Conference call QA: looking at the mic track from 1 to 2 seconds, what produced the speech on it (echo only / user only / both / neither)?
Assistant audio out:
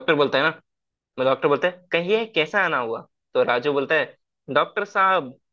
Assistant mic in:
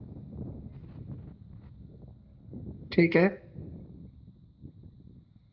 neither